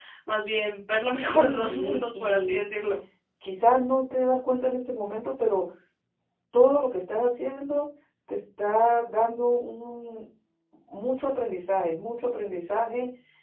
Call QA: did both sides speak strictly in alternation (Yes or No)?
No